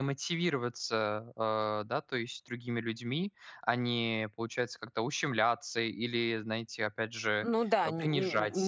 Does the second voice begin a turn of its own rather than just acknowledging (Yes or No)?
Yes